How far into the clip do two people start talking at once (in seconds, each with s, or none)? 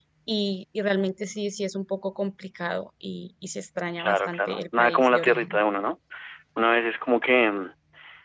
4.0 s